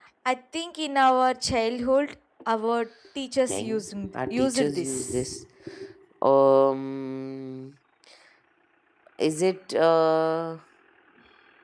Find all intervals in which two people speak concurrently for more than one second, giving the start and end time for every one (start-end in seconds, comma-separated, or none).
3.5-5.3